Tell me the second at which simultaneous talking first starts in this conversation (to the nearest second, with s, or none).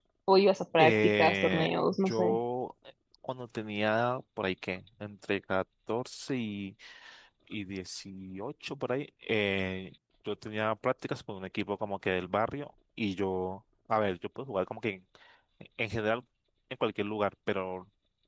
1 s